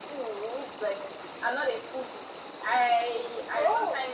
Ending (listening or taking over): listening